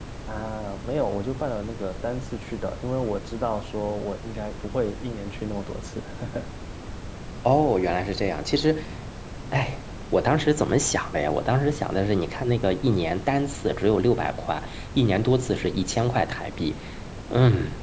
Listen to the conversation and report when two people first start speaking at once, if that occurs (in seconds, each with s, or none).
none